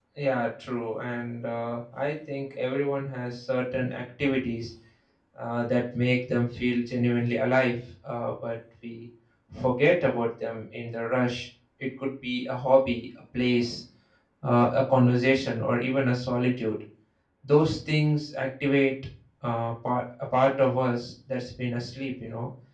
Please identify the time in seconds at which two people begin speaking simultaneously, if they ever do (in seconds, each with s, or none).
none